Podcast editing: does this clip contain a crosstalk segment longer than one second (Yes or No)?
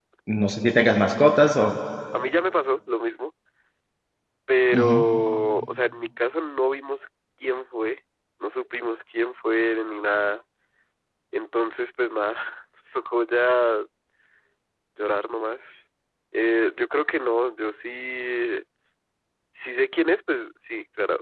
No